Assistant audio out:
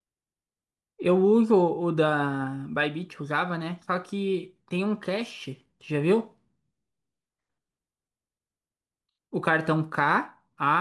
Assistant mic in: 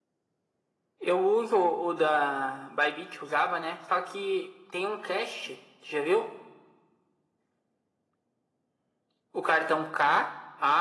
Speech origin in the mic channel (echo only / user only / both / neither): echo only